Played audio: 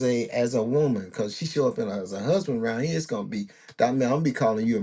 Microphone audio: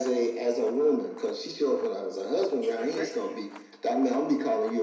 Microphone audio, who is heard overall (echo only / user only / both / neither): both